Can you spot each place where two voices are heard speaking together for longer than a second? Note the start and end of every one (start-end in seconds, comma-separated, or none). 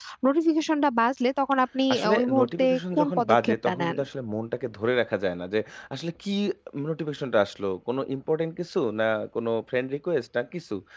1.9-4.0